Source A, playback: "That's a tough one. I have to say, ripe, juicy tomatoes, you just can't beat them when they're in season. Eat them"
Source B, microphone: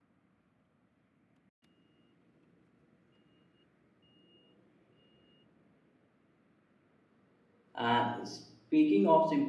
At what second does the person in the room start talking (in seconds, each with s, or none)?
7.8 s